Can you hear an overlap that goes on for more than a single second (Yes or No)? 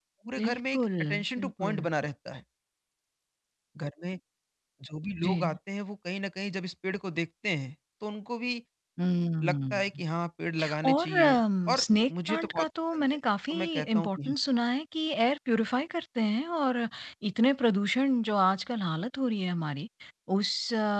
Yes